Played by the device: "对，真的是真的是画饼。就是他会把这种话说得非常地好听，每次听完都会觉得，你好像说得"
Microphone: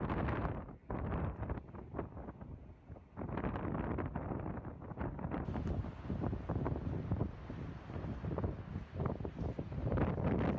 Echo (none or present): none